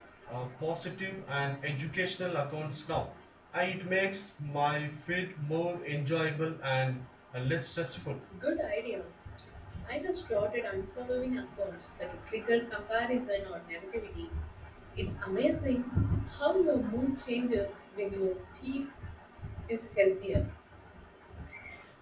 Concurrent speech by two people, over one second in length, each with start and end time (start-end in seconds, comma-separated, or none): none